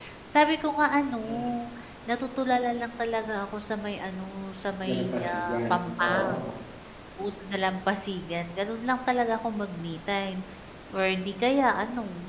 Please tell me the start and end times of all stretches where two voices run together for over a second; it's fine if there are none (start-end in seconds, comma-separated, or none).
4.8-6.4